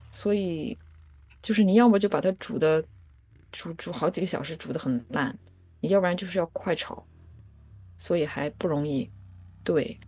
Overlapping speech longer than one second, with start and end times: none

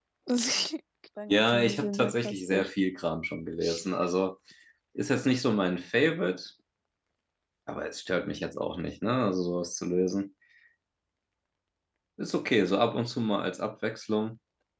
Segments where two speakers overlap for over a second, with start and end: 1.3-2.7

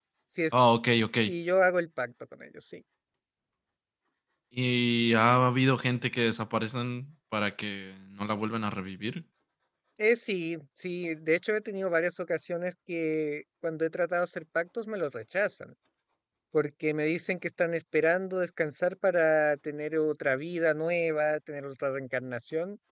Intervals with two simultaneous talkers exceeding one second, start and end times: none

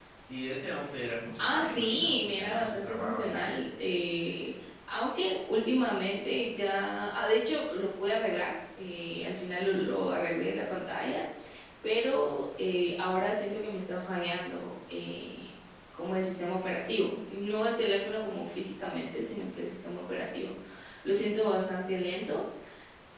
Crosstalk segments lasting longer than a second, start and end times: 1.4-3.5

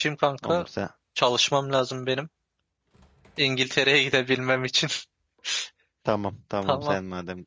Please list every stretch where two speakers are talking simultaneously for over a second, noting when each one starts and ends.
none

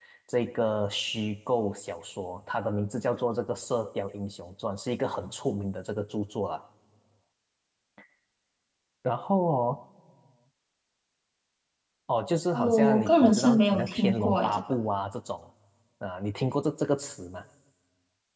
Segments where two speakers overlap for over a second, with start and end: 12.5-14.6

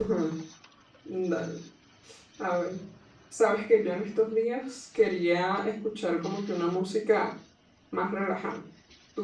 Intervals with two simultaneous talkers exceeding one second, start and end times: none

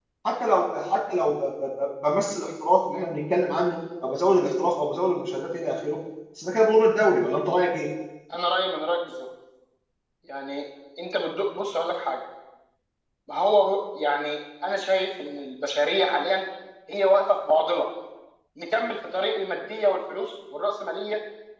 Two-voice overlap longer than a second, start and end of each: none

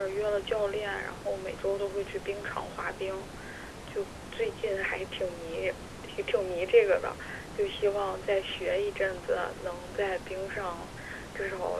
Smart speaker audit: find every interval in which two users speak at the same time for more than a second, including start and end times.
none

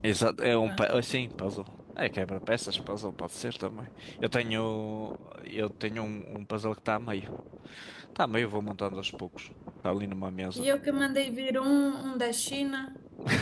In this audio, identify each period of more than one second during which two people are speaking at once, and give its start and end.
none

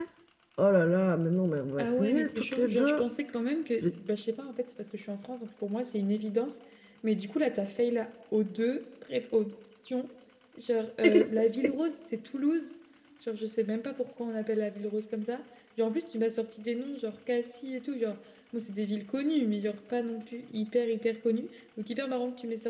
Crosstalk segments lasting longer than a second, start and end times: 1.8-3.0

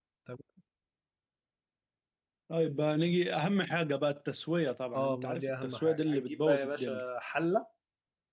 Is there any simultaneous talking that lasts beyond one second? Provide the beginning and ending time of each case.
4.9-7.0

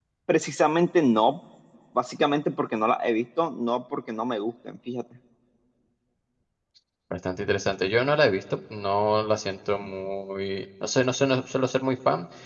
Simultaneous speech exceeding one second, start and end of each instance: none

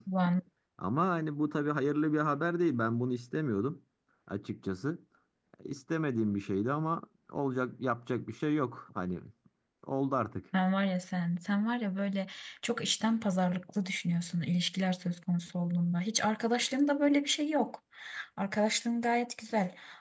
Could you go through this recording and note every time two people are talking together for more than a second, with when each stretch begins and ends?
none

